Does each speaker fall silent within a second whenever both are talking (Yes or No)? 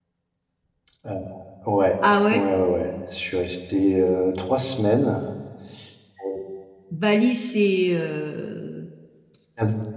Yes